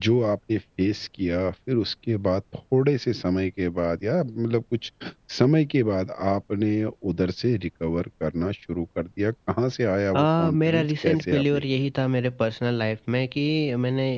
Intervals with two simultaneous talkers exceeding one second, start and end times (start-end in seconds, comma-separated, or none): 10.2-11.6